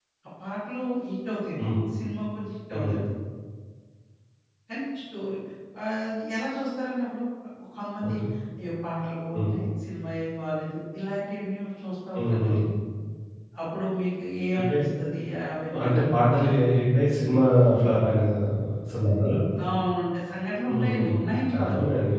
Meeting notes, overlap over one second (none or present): none